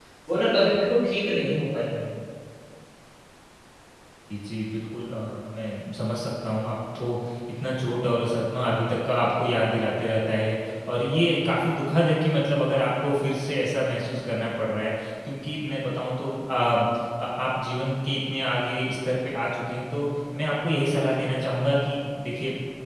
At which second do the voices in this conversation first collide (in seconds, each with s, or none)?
none